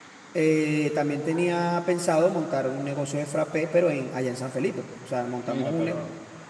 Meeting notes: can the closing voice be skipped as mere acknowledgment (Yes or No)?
No